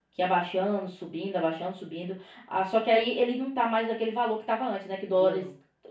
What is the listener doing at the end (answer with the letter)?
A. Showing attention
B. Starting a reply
A